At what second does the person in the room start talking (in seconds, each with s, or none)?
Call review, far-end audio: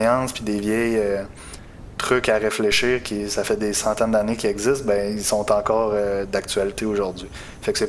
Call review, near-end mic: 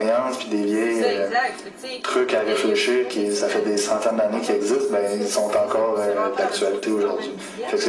0.7 s